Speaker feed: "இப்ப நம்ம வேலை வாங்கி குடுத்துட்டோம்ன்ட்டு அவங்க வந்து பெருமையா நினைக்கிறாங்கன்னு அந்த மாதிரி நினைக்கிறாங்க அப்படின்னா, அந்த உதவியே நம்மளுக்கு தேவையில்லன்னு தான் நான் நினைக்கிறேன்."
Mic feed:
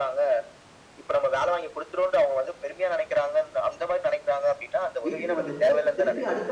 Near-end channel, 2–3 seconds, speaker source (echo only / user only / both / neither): echo only